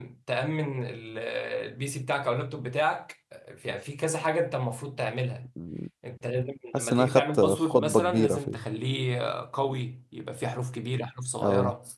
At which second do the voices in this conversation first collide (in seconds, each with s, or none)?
6.7 s